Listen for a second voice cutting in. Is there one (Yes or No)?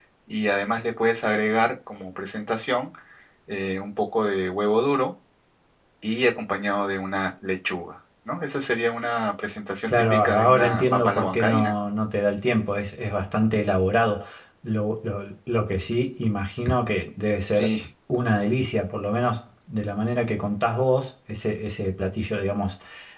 Yes